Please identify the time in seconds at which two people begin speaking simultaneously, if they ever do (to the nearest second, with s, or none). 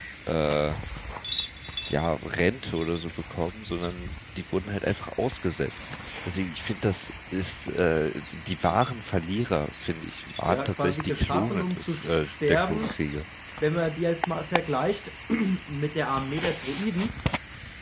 10 s